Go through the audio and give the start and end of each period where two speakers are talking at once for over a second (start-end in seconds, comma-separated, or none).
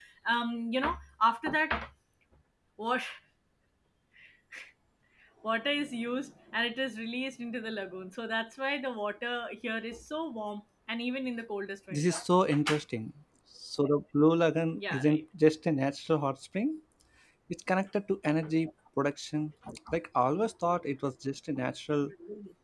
none